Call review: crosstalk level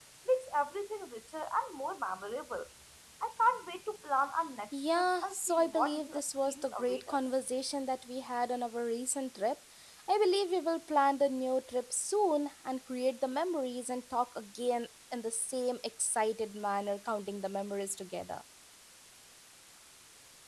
present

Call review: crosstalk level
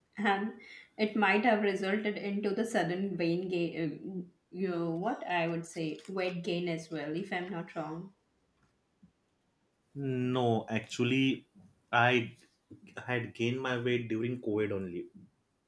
none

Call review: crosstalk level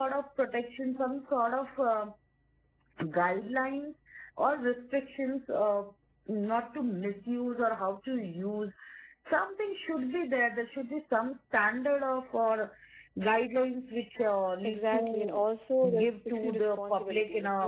present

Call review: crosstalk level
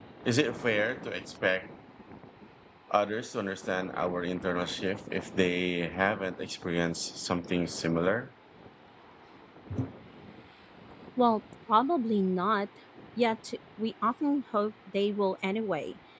none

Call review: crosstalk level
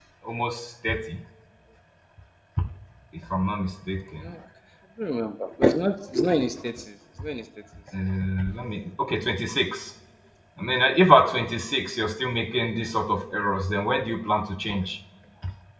none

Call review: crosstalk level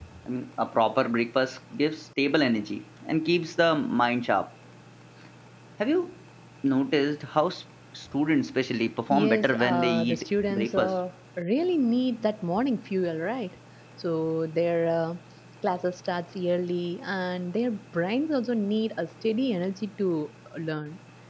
present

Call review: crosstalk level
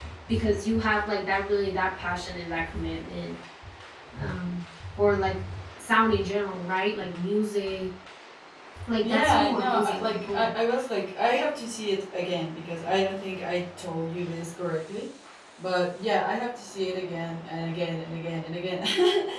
present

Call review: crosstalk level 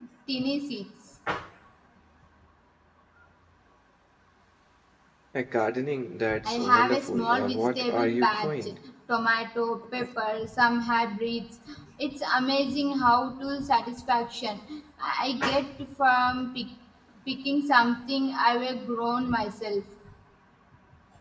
present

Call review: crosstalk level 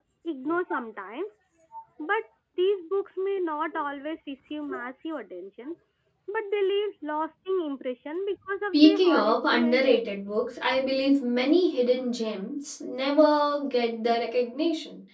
present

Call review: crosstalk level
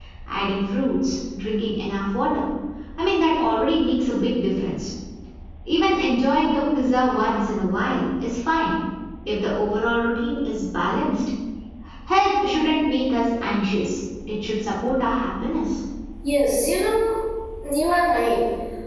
none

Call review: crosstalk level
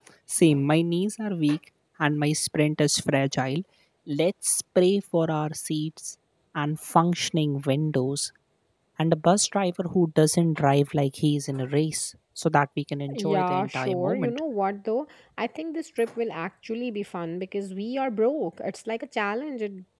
present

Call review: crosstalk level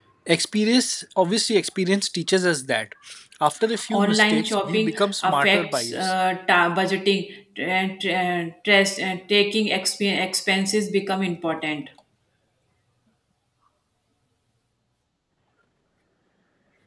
present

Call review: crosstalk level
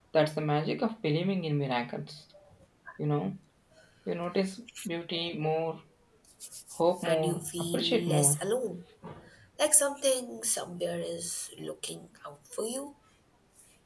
present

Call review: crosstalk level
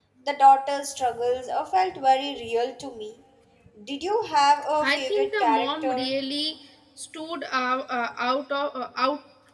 present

